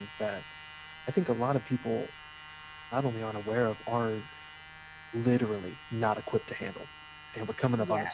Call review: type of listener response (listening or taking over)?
listening